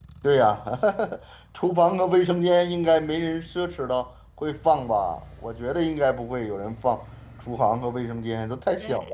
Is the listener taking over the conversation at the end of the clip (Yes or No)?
Yes